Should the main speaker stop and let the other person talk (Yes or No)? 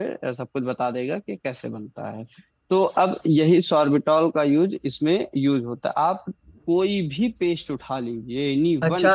Yes